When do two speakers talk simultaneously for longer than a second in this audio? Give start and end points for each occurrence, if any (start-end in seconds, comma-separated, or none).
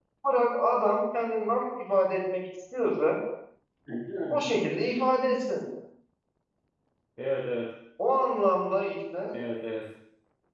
none